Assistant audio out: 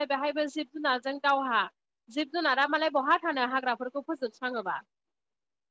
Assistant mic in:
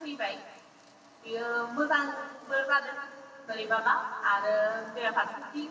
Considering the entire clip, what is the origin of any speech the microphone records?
user only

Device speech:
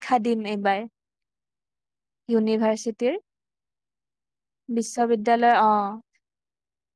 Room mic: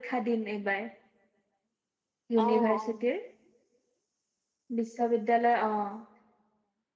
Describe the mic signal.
both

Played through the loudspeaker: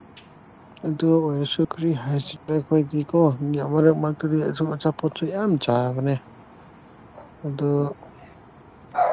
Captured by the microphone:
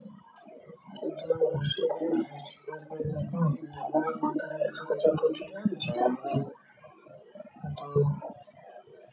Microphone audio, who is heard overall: echo only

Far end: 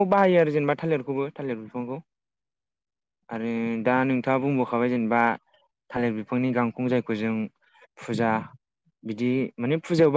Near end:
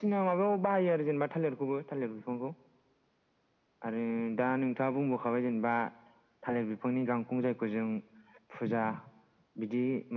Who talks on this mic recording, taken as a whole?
echo only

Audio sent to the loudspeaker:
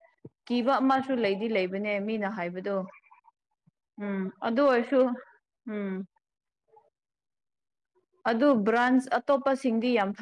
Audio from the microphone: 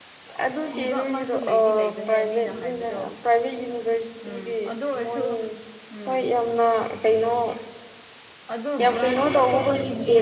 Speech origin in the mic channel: both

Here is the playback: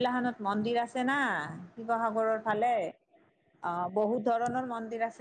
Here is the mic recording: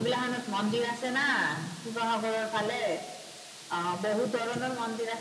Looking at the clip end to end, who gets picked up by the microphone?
echo only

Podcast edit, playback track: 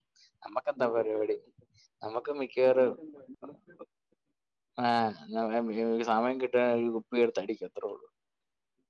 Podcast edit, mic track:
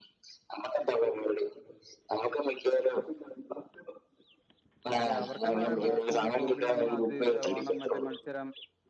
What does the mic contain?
both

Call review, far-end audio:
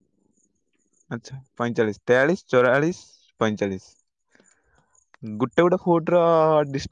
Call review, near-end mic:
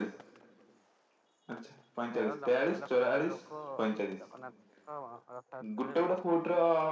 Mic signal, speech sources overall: both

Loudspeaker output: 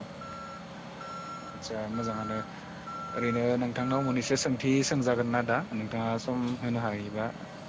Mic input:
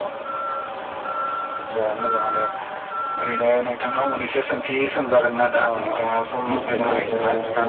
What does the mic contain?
both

